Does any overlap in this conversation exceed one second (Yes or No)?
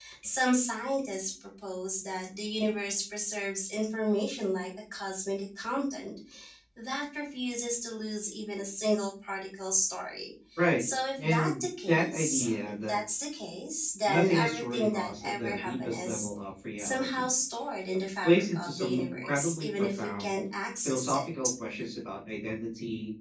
Yes